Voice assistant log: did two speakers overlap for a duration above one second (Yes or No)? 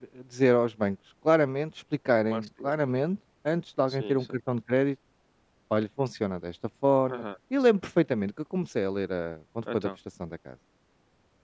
No